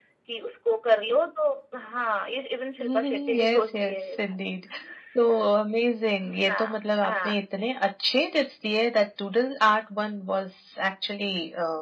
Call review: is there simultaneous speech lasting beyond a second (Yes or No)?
Yes